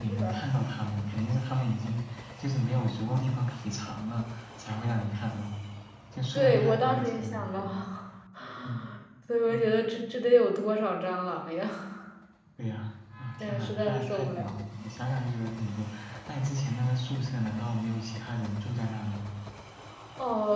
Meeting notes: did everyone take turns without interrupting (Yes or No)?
No